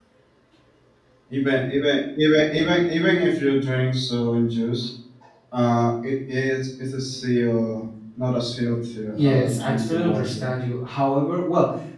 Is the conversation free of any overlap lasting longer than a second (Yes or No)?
No